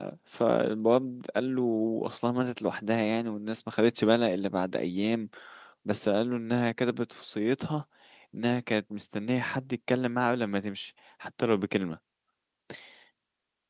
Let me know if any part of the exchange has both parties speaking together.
No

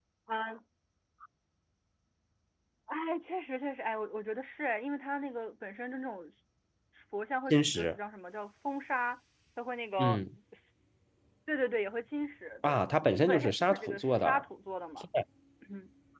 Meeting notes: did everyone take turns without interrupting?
No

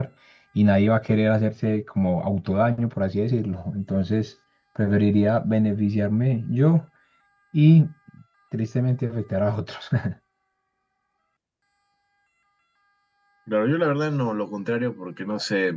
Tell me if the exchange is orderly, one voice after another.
Yes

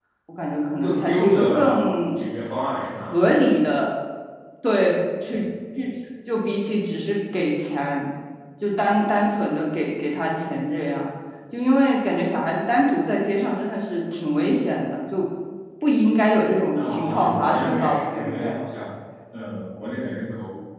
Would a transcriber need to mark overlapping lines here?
Yes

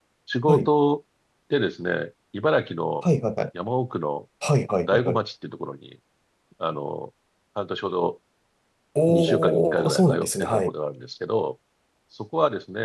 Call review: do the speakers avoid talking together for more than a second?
No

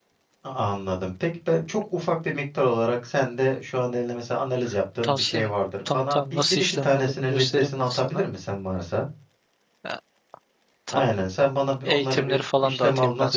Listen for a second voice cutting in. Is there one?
Yes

